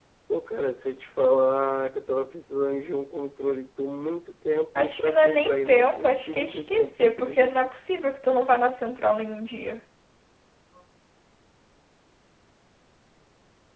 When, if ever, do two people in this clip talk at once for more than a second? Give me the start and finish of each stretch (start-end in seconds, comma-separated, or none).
4.8-7.5